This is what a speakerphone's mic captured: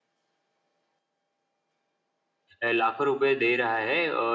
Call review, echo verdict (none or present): none